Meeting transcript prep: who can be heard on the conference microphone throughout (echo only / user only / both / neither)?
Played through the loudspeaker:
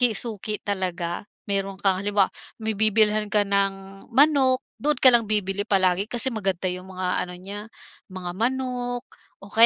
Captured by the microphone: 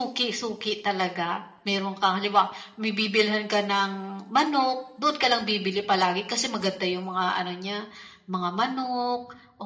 echo only